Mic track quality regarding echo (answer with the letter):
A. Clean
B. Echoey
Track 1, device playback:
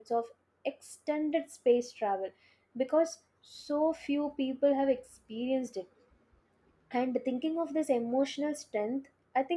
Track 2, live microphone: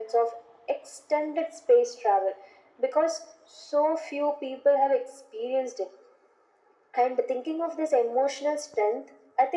B